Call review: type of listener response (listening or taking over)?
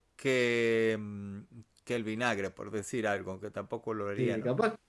taking over